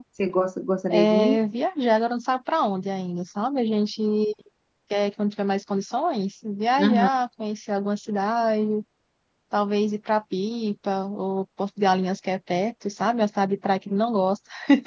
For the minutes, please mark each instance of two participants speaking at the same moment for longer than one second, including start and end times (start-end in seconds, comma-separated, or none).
none